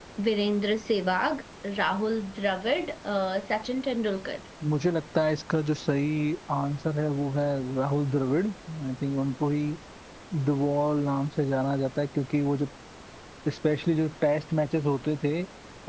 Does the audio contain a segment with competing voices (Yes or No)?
No